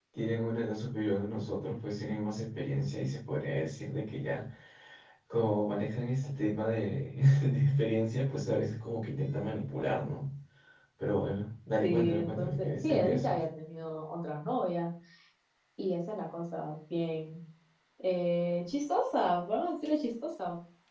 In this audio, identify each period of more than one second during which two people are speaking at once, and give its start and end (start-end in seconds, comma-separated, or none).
11.8-13.4